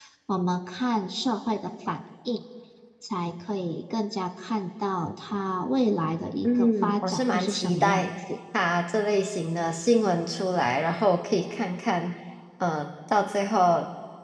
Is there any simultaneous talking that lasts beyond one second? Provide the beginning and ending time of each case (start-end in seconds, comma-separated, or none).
6.4-8.0